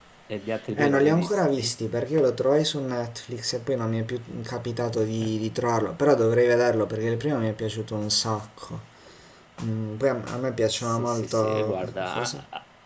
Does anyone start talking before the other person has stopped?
Yes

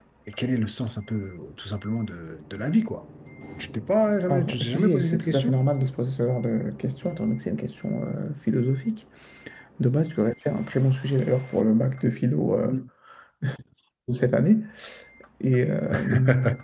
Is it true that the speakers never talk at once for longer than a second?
No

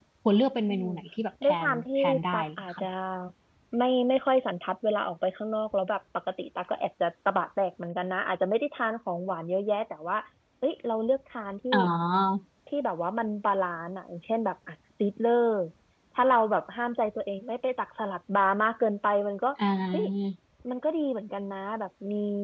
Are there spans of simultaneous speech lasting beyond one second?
Yes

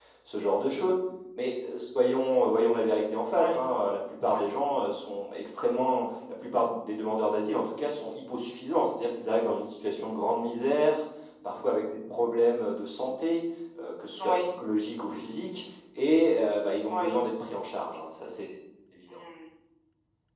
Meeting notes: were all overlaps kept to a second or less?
Yes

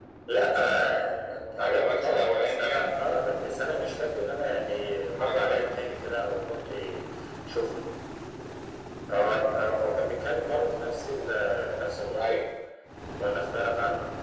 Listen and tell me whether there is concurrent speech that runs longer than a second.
Yes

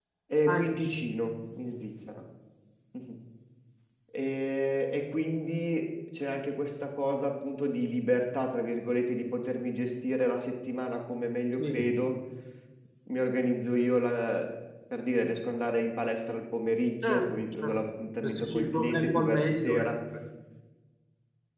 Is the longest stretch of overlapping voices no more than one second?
No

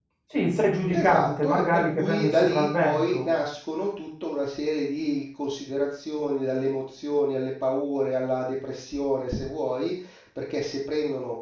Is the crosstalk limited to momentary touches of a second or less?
No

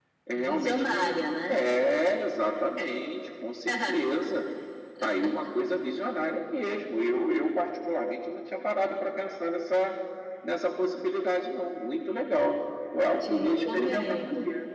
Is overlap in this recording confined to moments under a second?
No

